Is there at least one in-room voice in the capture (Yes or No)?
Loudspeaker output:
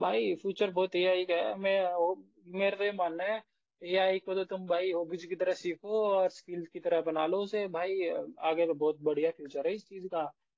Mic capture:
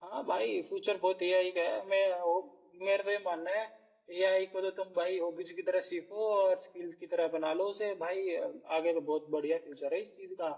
No